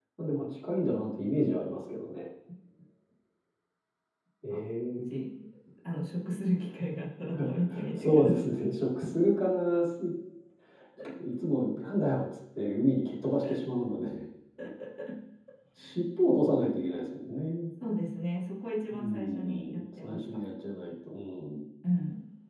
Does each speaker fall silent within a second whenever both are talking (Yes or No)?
No